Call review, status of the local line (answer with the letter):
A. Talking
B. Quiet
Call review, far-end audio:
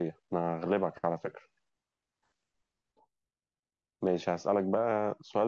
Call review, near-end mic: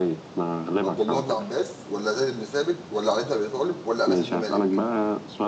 A